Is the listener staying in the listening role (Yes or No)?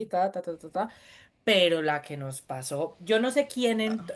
No